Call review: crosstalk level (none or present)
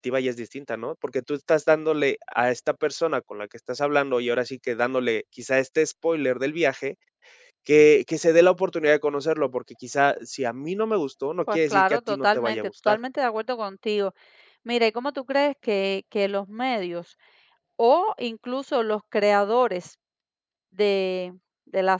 present